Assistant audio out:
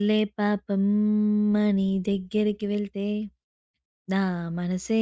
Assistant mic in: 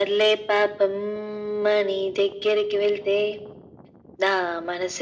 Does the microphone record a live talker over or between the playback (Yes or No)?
No